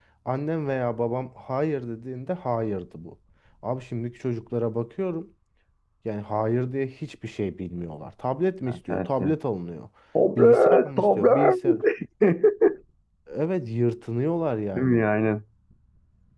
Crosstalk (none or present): present